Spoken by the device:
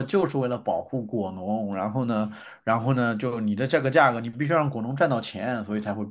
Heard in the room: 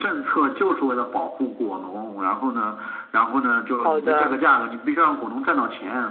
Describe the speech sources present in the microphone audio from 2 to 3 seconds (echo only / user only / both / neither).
echo only